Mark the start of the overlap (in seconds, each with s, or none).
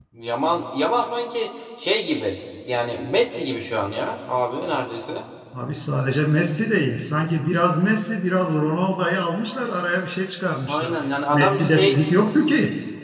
10.7 s